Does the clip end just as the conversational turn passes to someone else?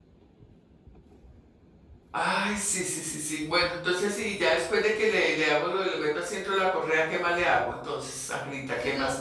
Yes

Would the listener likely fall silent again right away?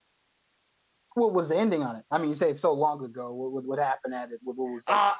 No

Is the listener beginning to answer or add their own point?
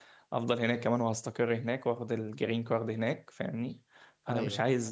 No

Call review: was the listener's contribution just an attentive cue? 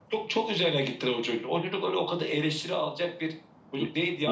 Yes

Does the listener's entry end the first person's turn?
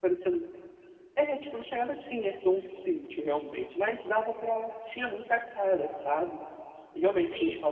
No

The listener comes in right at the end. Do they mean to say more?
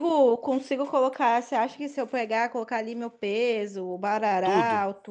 No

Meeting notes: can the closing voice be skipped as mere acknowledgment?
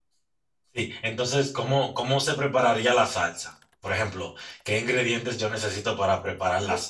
Yes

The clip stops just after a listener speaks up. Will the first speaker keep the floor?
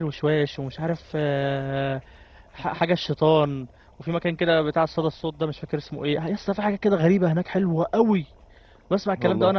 Yes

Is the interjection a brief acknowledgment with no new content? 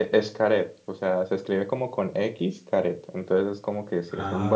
Yes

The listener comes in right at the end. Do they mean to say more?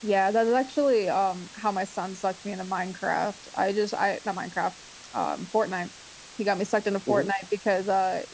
No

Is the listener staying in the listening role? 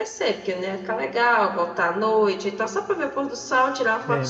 No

